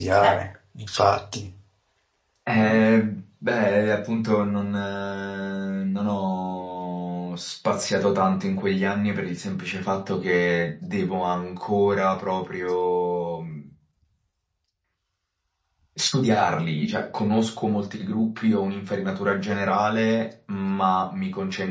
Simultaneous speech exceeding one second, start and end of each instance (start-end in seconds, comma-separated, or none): none